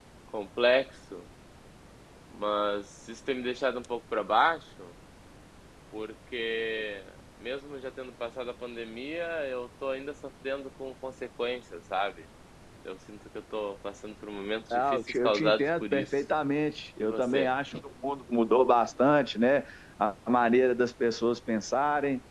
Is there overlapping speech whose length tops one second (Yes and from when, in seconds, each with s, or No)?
Yes, from 14.7 s